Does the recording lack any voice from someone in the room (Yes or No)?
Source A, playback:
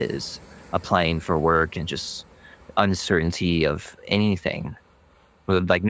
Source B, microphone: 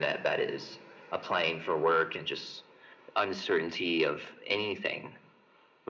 Yes